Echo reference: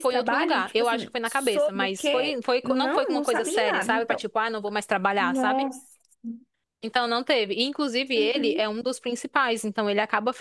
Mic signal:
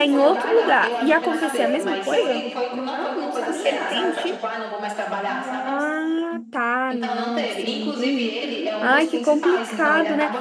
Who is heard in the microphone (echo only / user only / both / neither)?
both